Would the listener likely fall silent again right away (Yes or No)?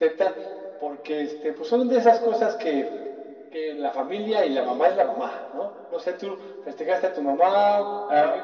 No